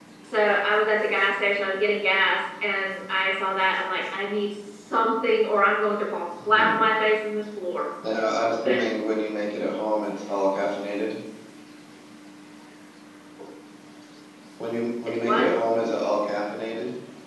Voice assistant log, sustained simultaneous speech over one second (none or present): none